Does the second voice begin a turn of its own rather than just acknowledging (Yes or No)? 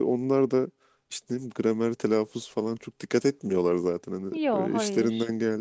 No